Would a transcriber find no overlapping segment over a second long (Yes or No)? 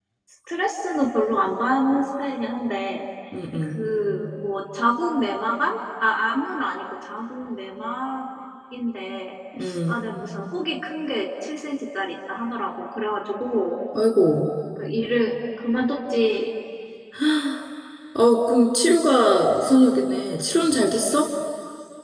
Yes